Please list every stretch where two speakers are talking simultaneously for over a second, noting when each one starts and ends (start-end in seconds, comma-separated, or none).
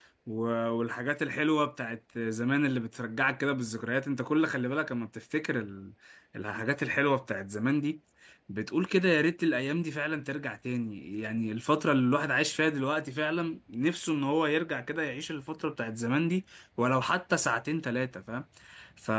none